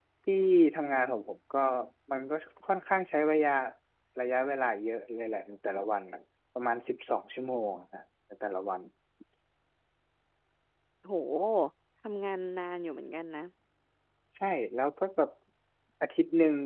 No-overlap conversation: Yes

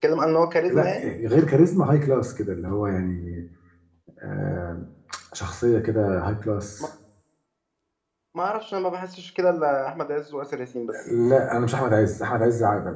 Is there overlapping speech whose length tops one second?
No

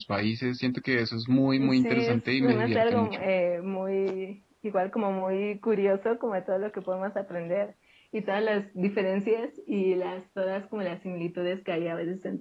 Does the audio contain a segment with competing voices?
Yes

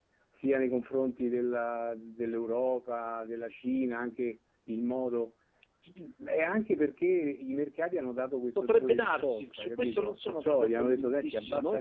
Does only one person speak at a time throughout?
No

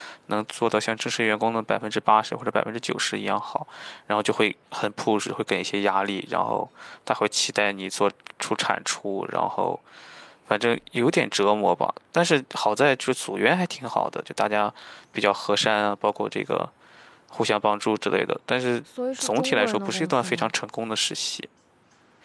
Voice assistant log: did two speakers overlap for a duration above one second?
Yes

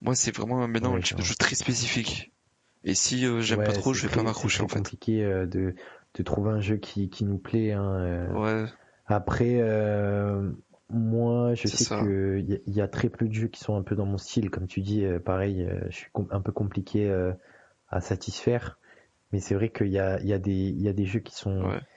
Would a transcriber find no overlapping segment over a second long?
No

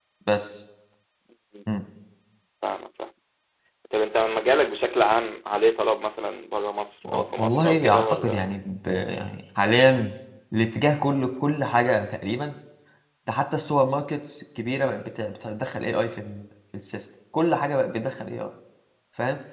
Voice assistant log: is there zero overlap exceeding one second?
No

